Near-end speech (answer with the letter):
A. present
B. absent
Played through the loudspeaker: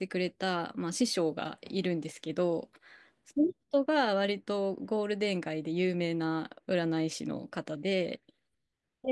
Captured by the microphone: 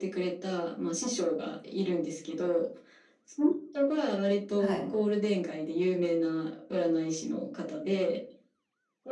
A